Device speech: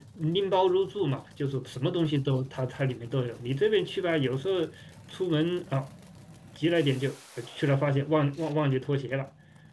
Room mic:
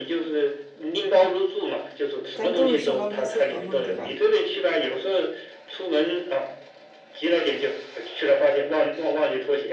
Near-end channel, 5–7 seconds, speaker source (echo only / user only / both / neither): echo only